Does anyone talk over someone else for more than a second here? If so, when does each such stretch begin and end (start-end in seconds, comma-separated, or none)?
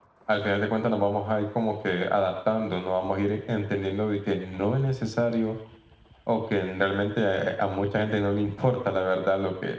none